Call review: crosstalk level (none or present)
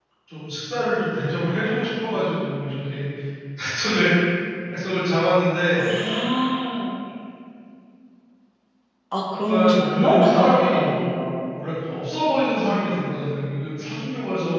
present